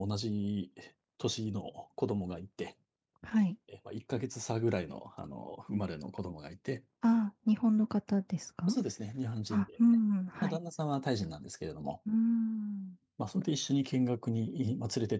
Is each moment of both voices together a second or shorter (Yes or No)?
Yes